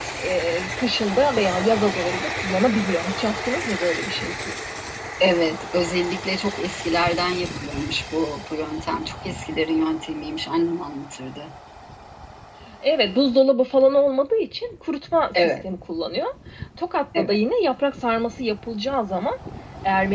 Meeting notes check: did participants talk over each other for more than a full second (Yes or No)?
No